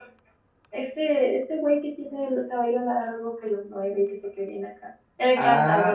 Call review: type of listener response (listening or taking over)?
taking over